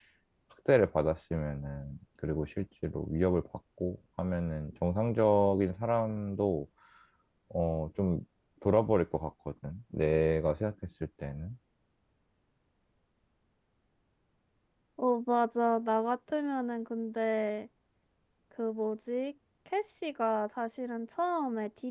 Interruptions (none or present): none